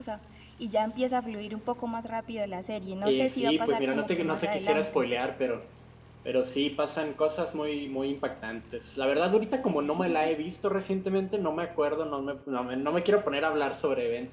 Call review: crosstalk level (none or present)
present